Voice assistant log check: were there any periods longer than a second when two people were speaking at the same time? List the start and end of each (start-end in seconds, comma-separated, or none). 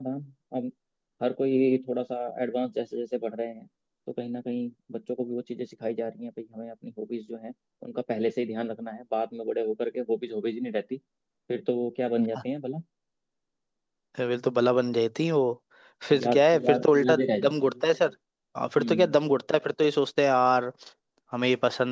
16.2-17.7